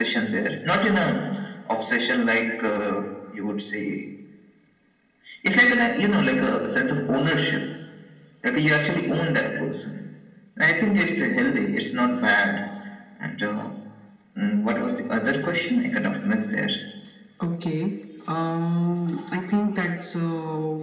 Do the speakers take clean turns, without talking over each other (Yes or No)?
Yes